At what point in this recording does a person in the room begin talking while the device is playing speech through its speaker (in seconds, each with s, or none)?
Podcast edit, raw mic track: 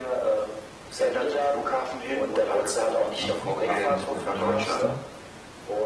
3.2 s